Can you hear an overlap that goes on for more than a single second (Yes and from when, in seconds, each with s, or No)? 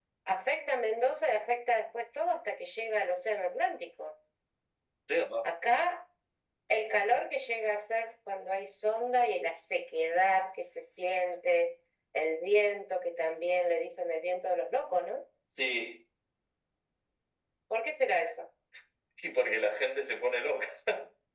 No